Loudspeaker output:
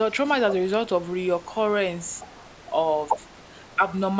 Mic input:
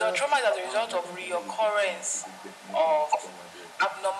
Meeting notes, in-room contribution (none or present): present